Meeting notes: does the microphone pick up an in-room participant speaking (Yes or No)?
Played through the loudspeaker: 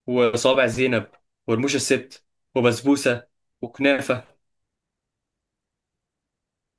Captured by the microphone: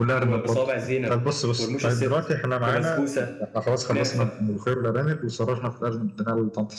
Yes